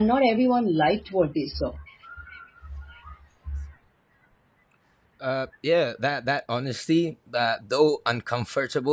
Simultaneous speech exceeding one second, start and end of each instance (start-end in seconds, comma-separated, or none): none